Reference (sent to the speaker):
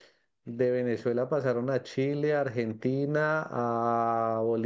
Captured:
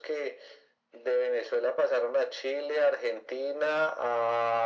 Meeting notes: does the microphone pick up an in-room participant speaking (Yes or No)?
No